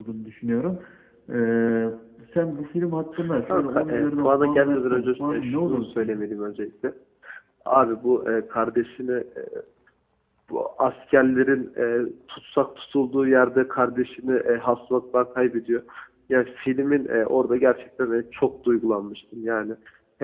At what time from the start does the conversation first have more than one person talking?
3 s

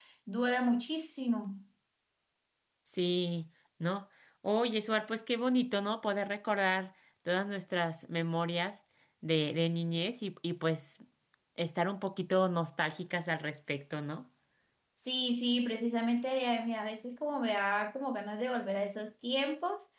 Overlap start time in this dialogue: none

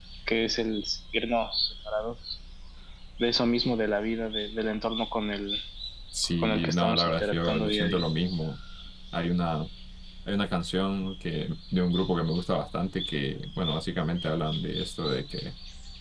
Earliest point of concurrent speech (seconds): 6 s

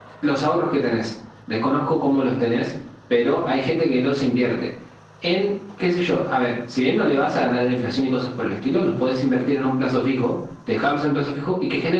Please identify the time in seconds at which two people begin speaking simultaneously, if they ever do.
none

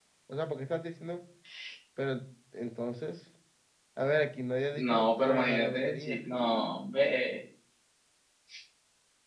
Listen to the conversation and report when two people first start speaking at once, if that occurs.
5 s

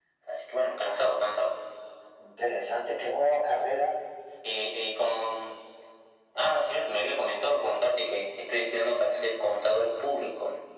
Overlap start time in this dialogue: none

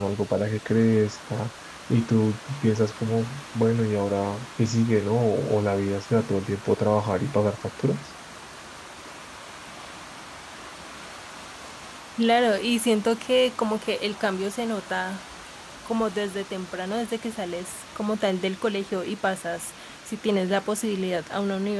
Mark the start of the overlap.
none

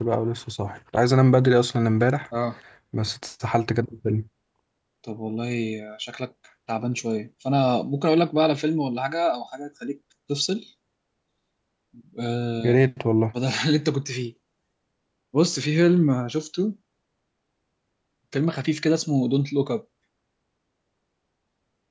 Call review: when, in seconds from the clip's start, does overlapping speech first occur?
none

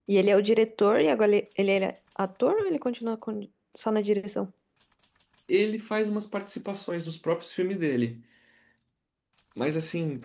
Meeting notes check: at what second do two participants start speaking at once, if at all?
none

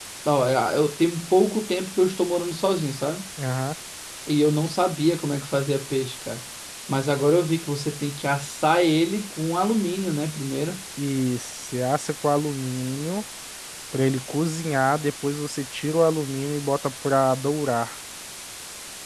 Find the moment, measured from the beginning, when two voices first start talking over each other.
none

